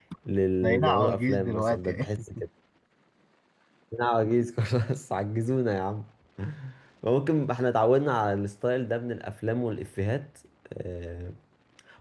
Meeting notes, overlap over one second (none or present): present